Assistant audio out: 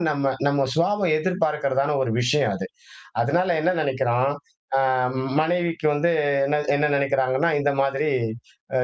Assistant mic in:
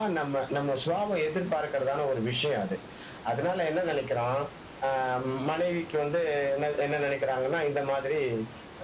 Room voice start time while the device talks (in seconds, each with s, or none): none